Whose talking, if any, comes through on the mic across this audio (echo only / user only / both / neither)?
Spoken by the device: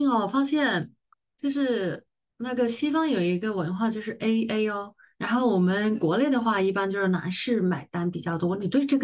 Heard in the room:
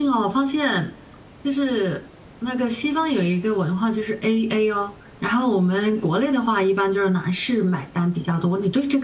echo only